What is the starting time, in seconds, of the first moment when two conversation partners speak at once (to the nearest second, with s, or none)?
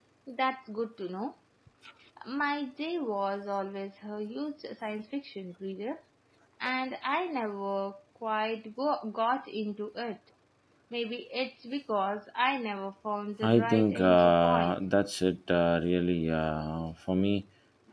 13 s